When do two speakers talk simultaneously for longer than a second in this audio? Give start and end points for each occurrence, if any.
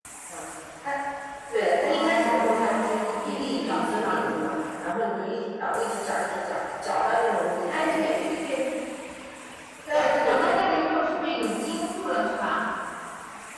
1.9-4.2, 9.9-11.3

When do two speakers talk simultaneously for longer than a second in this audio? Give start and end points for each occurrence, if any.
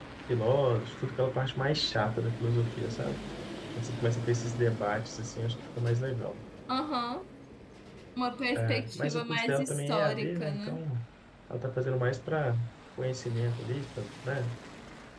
8.6-10.8

